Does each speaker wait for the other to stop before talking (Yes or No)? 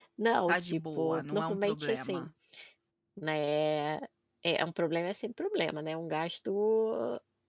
No